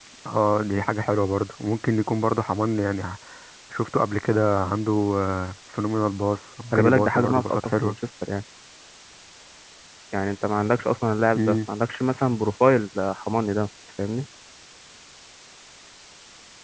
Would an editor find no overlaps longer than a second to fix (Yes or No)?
No